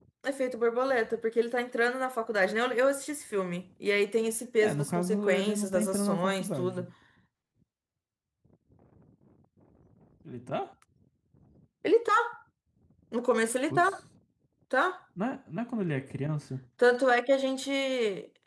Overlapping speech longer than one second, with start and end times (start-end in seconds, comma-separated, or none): 4.6-6.9